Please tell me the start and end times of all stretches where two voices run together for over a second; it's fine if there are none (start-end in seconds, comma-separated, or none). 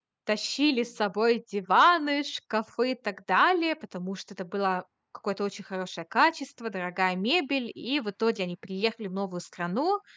none